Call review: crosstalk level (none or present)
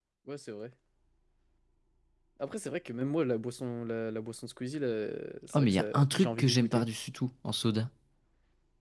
present